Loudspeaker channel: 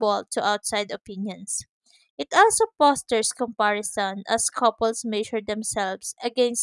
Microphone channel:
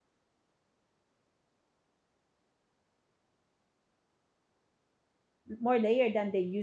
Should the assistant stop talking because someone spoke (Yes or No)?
Yes